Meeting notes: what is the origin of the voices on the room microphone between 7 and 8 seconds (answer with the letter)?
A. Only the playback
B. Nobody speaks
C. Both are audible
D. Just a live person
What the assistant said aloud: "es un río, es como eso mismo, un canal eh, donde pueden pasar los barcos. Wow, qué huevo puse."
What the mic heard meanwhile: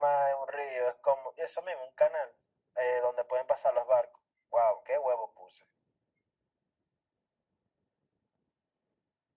B